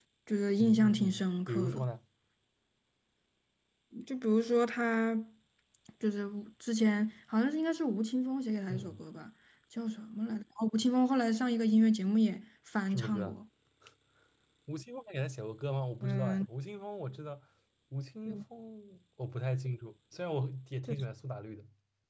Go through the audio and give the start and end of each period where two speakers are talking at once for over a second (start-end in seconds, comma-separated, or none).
0.6-1.8